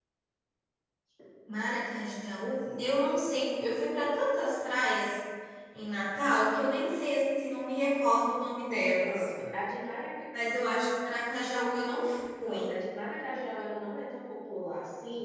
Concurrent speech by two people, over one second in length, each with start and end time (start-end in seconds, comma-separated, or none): none